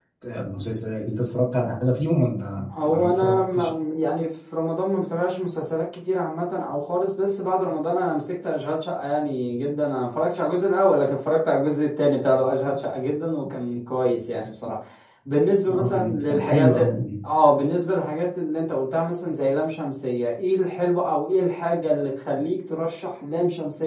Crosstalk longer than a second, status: present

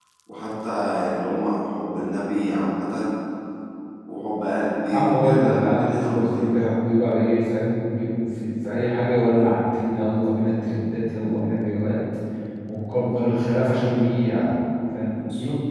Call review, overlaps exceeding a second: present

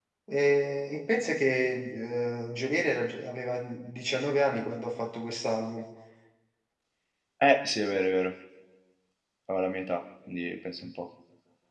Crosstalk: none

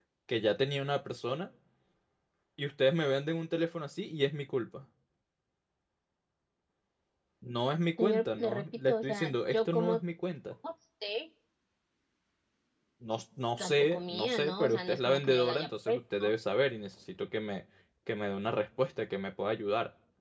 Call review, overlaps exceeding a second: present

